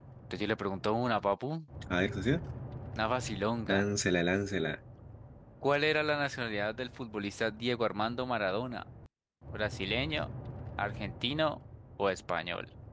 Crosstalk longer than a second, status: none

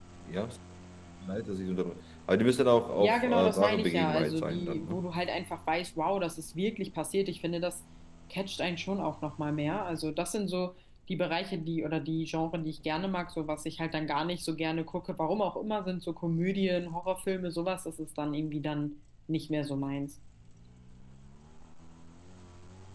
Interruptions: present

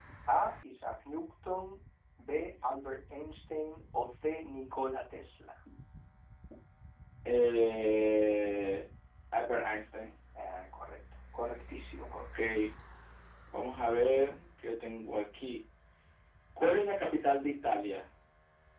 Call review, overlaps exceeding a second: none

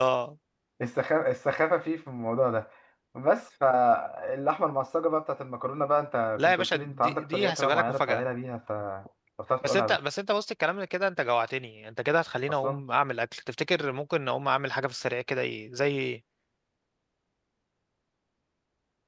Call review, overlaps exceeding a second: present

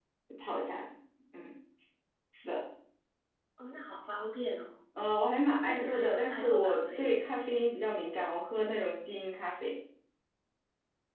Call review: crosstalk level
present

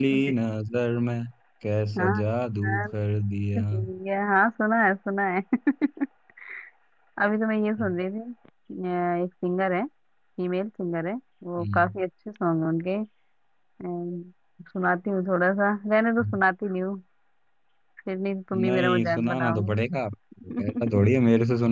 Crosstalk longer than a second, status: present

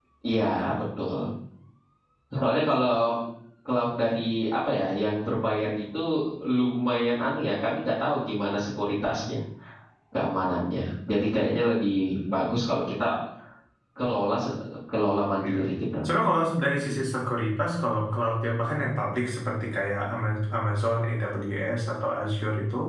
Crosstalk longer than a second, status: none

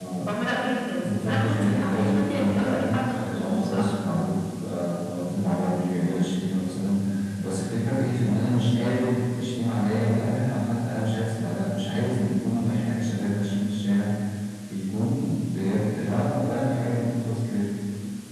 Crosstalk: present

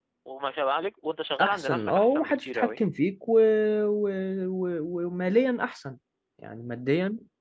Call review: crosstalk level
present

